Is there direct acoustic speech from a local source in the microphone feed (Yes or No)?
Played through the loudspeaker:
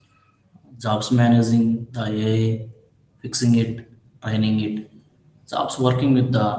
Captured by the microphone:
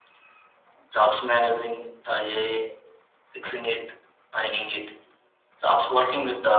No